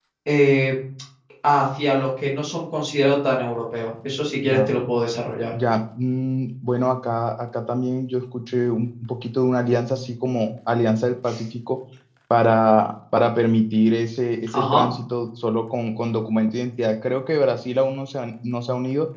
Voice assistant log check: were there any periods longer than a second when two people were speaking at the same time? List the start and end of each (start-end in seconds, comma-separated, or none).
none